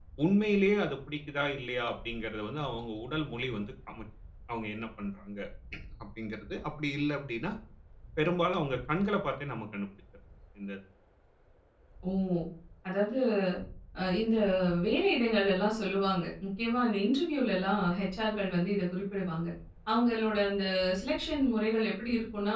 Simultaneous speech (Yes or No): No